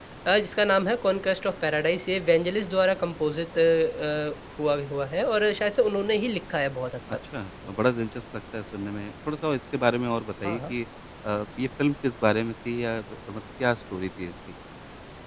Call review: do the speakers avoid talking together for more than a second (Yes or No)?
Yes